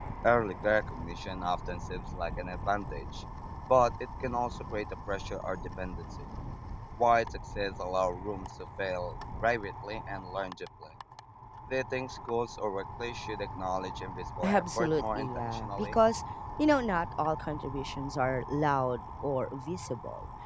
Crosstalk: present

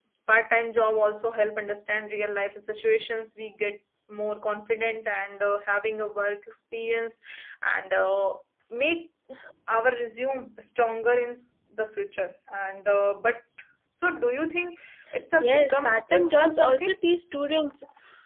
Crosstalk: present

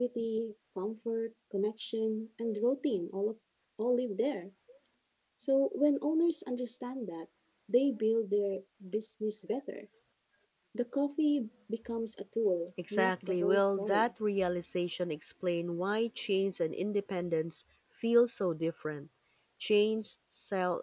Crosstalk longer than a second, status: present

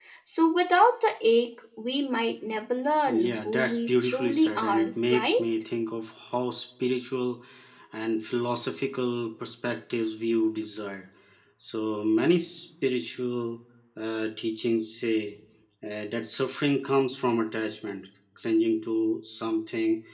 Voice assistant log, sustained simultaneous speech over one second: present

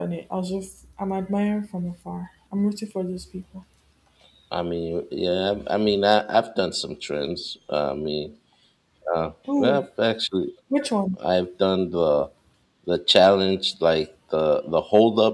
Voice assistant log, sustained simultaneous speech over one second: none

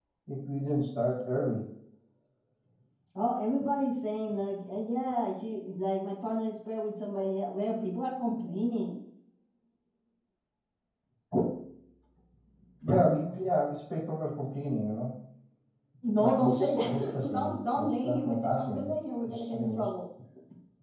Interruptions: present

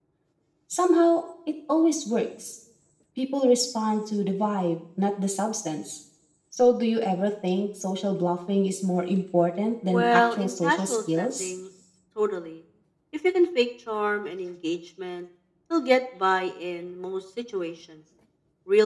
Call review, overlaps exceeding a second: present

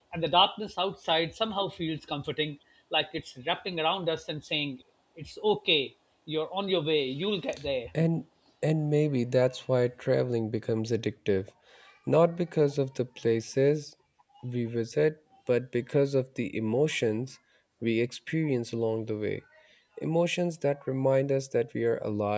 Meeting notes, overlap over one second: none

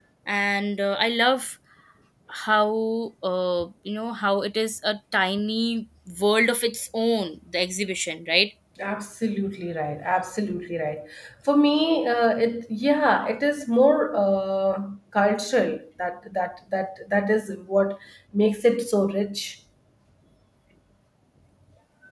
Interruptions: none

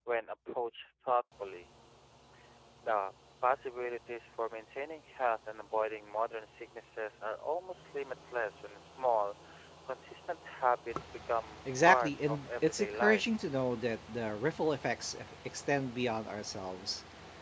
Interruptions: present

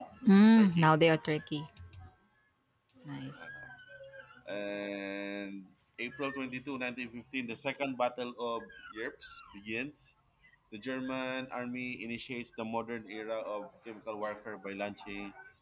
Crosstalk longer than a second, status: none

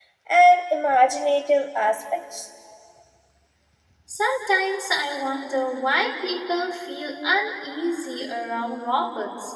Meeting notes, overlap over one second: none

